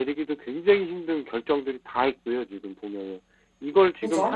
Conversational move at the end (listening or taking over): listening